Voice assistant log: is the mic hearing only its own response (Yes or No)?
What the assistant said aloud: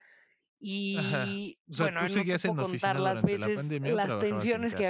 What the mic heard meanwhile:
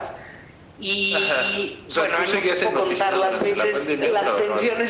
Yes